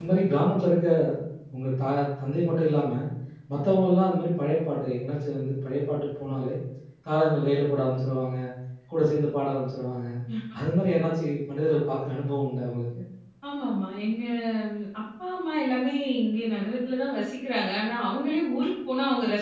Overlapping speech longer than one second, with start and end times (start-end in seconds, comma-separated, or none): none